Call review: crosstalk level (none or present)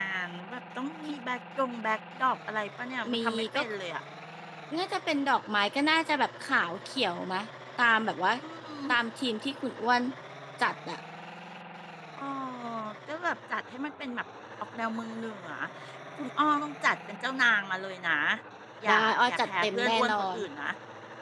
present